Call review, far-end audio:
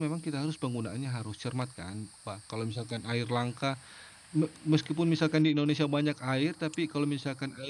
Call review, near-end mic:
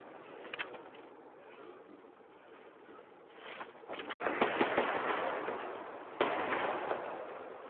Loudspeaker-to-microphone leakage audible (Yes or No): No